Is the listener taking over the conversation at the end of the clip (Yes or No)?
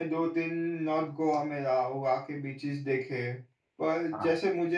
No